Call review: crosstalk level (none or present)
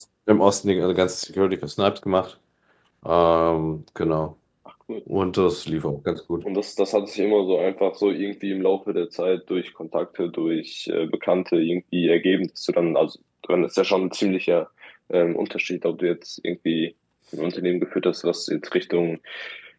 none